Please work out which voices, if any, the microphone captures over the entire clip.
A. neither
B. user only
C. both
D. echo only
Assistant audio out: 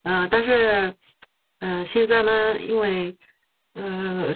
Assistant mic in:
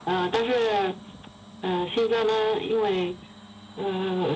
D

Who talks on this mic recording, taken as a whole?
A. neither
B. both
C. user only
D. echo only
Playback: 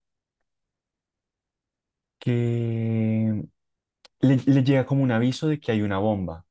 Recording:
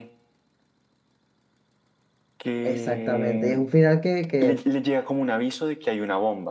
B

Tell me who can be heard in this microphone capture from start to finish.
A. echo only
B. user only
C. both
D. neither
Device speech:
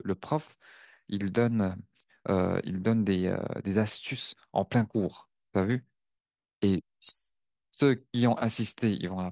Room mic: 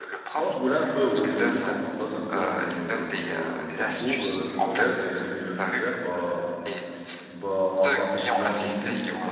C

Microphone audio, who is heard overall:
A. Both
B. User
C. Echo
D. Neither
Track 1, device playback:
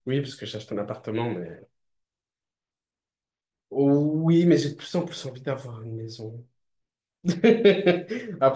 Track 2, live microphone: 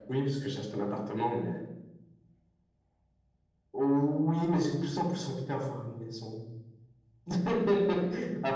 C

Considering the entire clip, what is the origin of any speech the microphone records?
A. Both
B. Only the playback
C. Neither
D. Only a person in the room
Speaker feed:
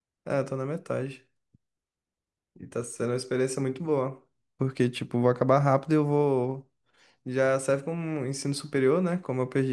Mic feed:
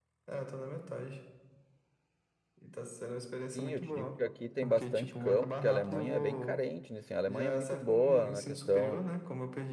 A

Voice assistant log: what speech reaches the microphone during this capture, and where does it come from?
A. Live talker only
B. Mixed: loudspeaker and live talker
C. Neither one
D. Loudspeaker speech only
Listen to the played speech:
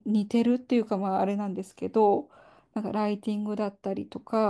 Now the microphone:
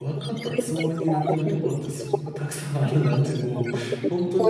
B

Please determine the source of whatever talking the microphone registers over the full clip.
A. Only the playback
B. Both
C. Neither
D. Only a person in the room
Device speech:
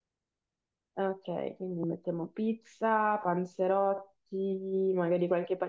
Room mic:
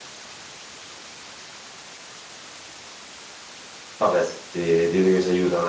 D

